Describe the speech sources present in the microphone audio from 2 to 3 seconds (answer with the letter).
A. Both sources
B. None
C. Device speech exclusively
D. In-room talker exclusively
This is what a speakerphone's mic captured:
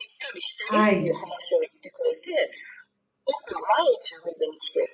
C